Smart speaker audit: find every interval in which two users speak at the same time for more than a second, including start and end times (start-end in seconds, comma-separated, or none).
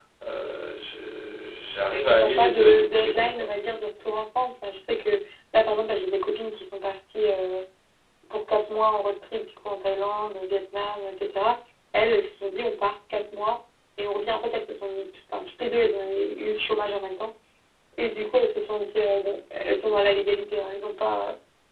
2.2-3.5